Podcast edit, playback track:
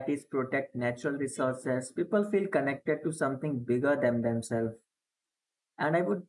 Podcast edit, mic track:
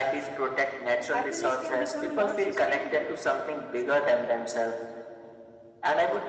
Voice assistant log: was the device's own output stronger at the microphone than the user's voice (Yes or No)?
Yes